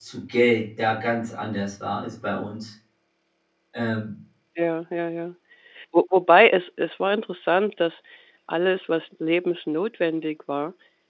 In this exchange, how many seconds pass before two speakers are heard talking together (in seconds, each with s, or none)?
none